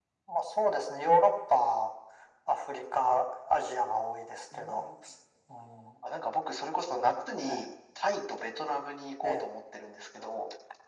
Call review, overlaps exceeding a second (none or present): none